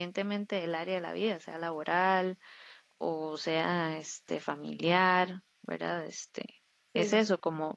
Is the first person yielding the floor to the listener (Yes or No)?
No